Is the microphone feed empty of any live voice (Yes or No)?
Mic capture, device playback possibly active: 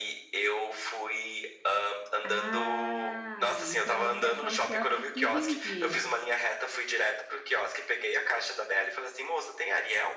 No